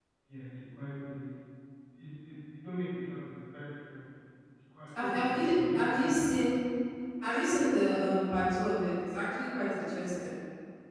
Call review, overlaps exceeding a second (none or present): present